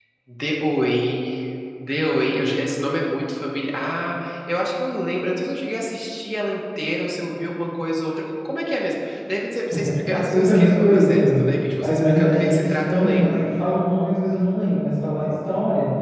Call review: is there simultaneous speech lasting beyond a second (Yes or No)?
Yes